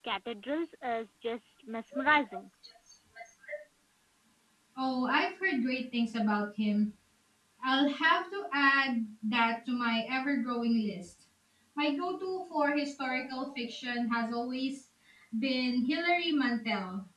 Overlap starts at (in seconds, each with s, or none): none